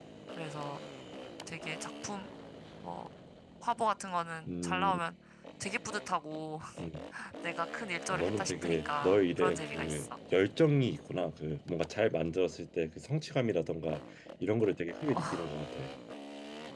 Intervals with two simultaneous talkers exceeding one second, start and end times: 8.1-10.1

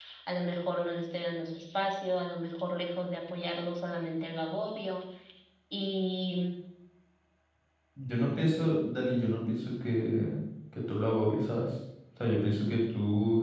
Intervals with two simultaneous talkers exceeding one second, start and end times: none

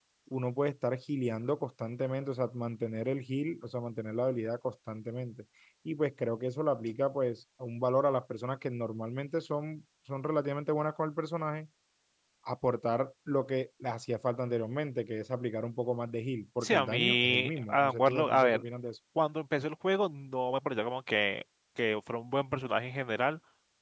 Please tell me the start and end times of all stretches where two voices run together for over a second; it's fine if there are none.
16.6-18.6

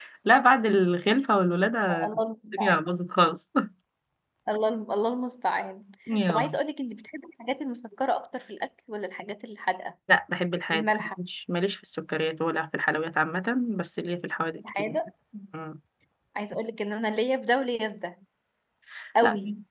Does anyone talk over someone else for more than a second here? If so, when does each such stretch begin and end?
none

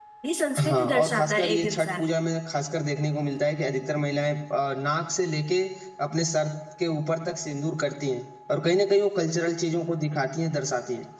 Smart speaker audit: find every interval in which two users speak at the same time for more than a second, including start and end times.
0.6-2.1

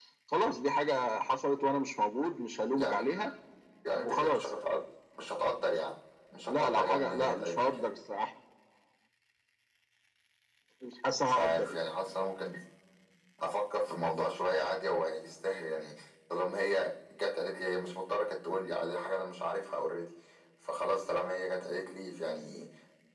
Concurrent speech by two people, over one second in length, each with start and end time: 6.5-7.9

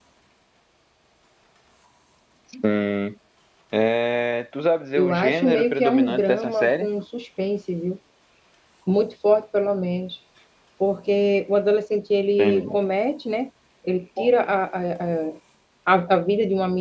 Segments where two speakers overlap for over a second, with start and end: 5.0-6.9

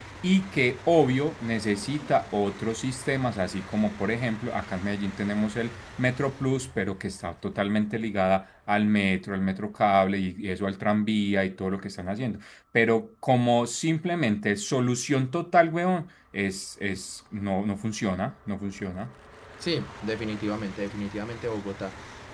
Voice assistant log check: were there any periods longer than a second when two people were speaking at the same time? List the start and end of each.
none

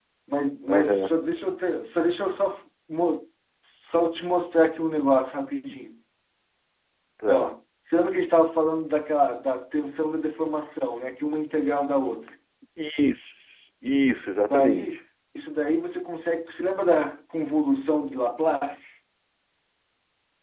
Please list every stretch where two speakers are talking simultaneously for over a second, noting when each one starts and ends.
none

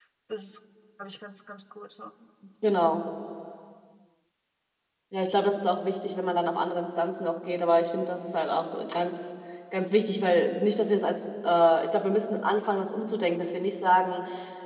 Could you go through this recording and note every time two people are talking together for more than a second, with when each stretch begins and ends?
none

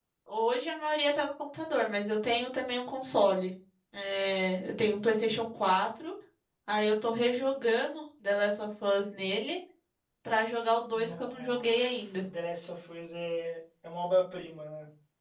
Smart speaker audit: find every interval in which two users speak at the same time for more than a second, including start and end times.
10.9-12.2

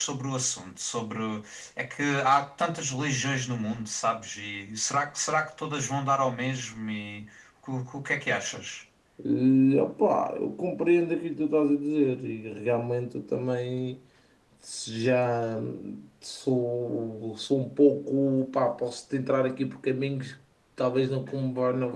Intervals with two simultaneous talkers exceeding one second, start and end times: none

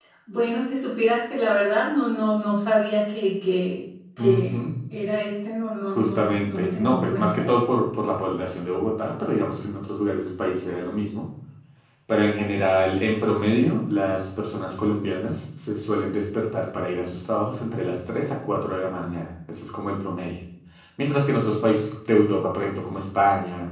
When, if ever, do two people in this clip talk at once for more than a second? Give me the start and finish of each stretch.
5.9-7.5

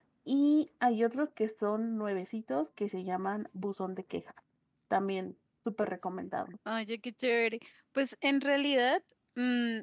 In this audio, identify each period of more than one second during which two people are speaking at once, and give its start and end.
none

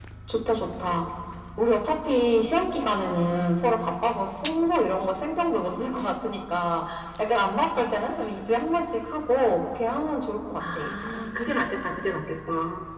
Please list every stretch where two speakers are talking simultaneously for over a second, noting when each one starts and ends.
none

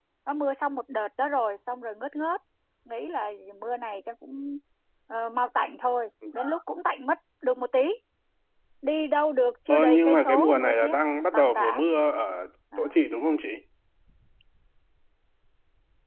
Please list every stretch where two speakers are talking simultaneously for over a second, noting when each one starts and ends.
9.7-10.9

